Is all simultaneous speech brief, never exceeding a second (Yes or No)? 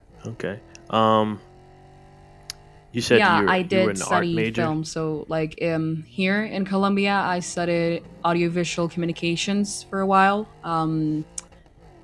No